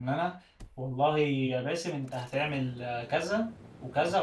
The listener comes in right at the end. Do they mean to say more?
No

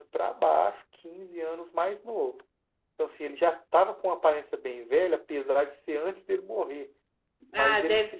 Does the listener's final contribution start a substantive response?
Yes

